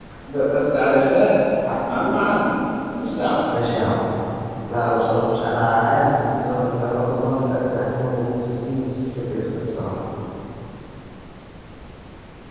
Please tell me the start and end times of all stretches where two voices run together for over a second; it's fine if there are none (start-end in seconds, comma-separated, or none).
none